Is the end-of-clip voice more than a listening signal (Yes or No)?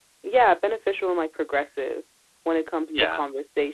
No